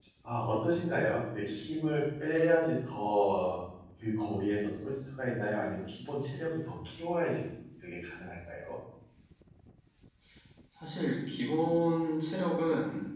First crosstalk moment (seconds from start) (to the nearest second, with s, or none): none